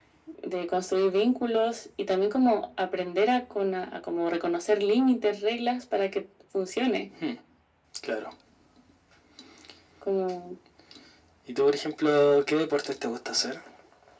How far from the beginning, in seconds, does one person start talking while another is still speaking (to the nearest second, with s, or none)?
none